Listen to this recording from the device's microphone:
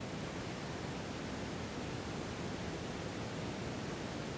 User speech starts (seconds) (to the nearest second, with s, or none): none